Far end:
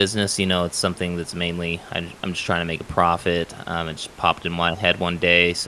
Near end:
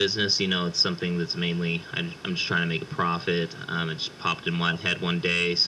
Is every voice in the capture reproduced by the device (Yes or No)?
Yes